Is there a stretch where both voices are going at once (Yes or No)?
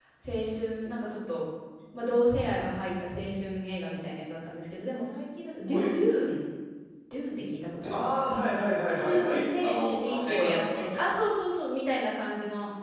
Yes